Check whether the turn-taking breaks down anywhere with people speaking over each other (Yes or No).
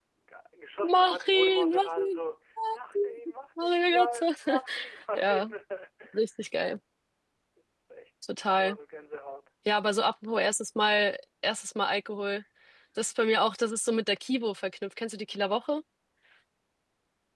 Yes